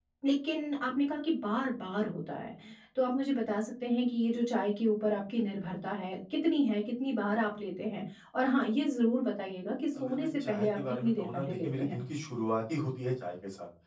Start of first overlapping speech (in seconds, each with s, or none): 9.9 s